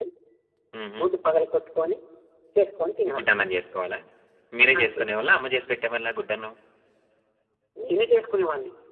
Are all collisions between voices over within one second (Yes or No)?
Yes